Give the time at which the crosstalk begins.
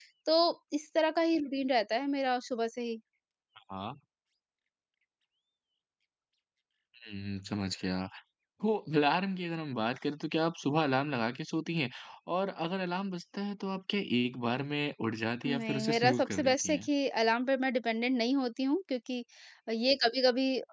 15.4 s

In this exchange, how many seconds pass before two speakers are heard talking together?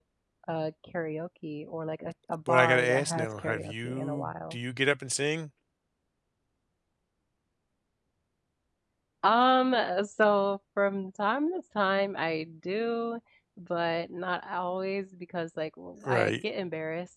2.5 s

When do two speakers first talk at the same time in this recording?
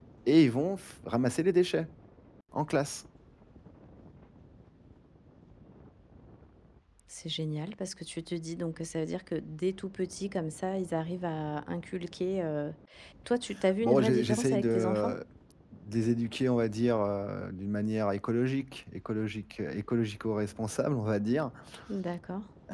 13.8 s

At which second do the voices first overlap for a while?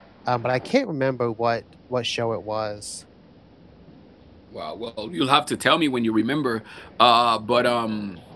none

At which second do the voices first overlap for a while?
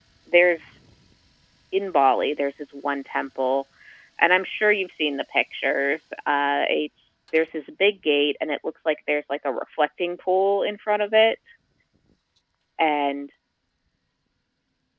none

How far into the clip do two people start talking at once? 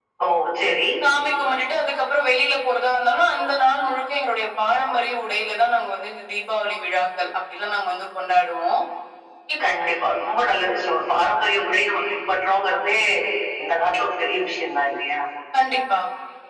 none

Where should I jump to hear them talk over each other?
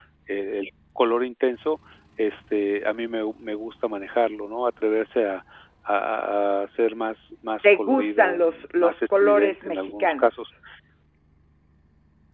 7.6 s

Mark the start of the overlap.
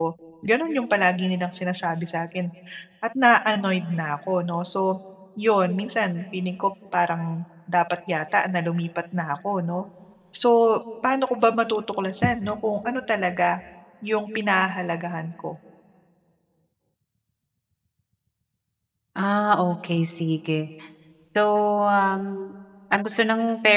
none

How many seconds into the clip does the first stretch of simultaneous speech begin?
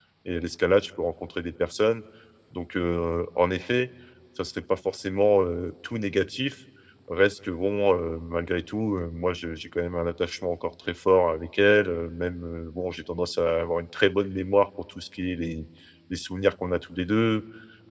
none

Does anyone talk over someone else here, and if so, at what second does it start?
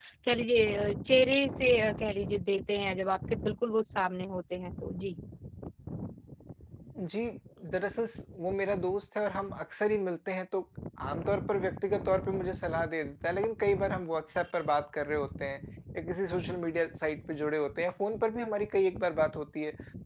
none

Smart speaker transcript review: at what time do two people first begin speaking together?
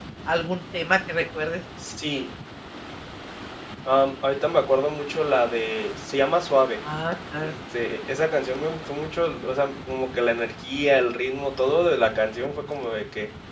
none

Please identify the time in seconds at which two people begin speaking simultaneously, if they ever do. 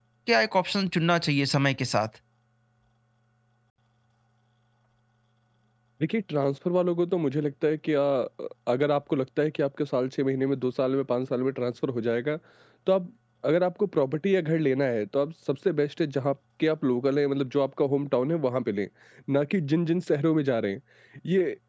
none

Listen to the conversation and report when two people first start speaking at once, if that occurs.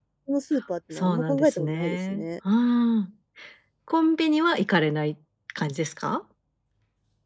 0.9 s

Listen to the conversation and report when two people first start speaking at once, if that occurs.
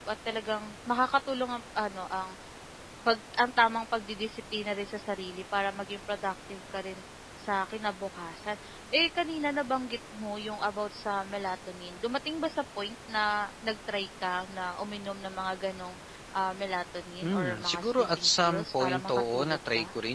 17.2 s

